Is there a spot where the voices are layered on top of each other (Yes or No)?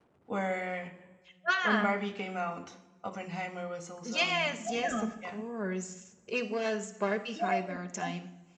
Yes